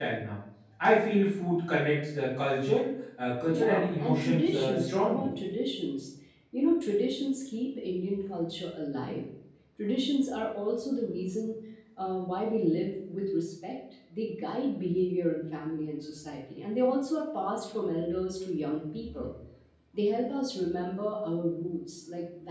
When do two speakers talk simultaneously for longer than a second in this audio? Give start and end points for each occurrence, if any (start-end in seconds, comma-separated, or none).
3.5-5.3